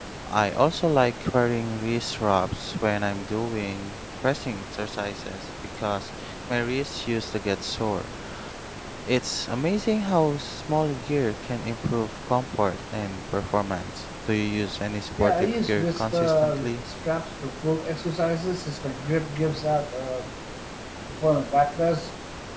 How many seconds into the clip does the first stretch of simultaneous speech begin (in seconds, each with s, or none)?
15.2 s